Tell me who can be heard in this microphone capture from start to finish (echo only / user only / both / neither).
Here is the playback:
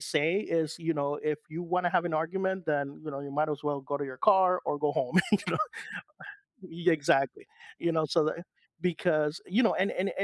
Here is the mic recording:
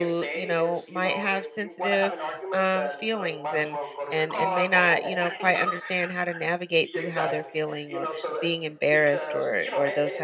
both